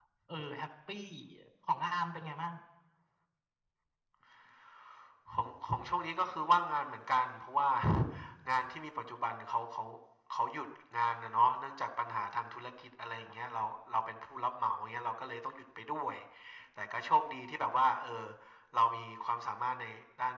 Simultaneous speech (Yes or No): No